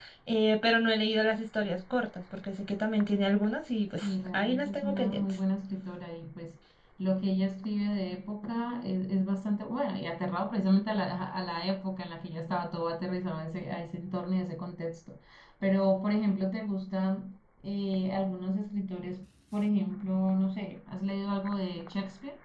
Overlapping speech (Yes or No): Yes